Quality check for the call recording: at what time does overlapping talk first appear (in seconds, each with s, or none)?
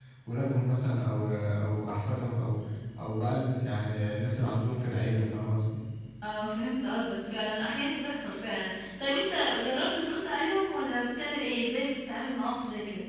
none